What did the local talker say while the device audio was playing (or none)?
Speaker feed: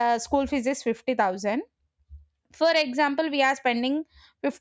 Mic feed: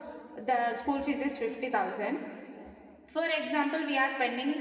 none